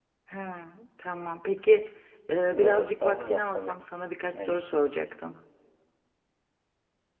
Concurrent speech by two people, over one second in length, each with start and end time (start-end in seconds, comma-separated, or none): 2.5-3.8